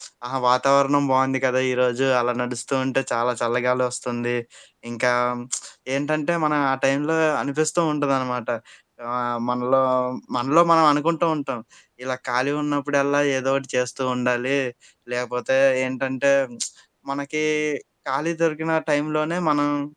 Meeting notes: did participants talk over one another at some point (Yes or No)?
No